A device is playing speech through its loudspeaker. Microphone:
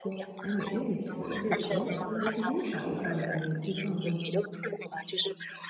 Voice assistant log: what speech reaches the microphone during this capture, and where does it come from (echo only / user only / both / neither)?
both